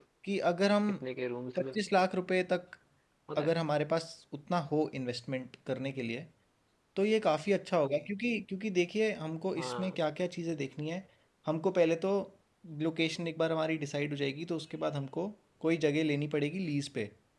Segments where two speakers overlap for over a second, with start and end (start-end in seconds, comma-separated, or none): none